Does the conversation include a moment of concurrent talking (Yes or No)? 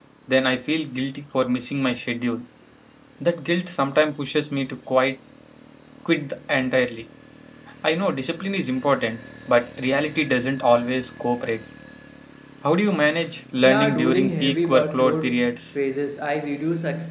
Yes